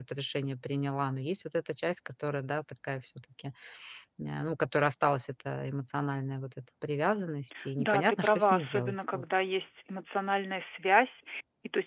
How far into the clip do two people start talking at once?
7.8 s

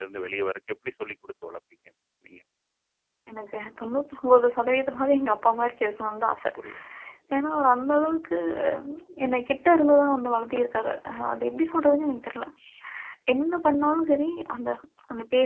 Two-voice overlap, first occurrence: none

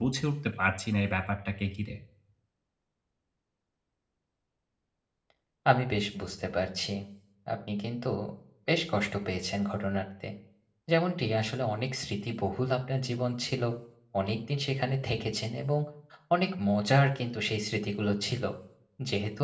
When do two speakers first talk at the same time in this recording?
none

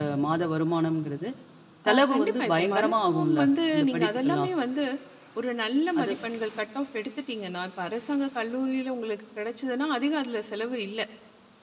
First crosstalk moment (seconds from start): 1.9 s

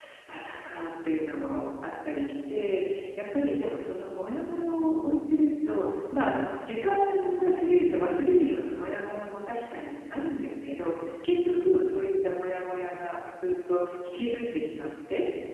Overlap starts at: none

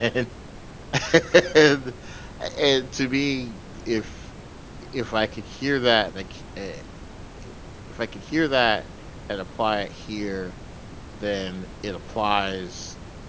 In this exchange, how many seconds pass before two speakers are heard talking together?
none

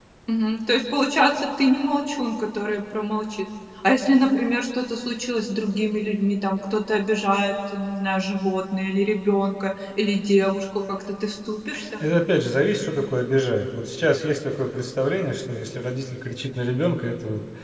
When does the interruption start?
none

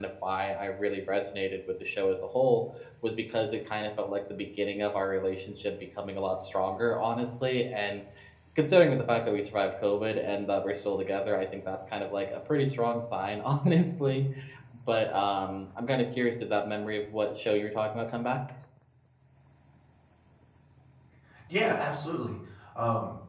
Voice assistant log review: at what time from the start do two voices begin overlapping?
none

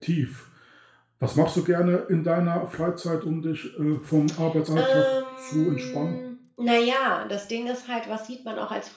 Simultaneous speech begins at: 4.8 s

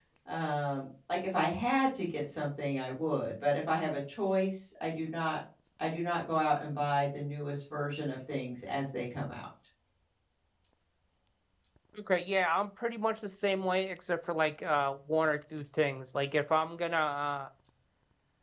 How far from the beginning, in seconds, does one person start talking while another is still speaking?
none

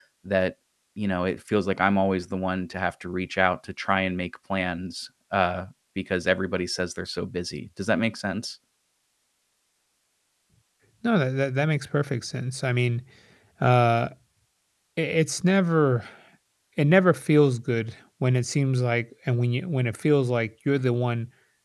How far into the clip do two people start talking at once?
none

